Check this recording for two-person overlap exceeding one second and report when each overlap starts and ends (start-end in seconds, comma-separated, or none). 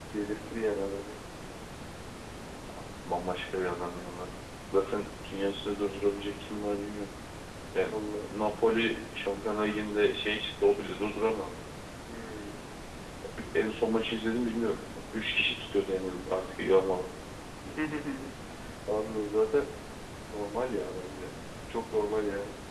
none